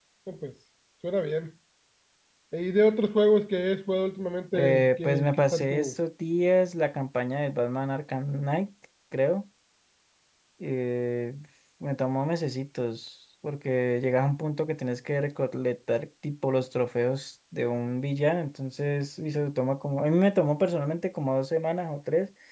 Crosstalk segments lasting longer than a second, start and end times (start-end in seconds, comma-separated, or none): 4.6-5.9